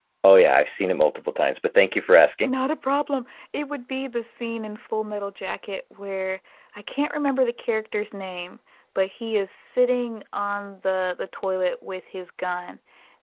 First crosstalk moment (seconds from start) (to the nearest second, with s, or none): none